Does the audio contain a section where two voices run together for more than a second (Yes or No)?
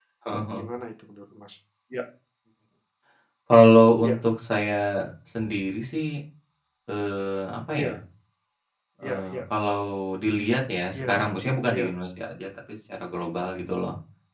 No